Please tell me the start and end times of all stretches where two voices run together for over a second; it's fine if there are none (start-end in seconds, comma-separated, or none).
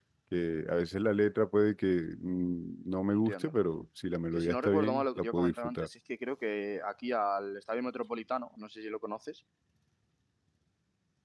4.4-5.9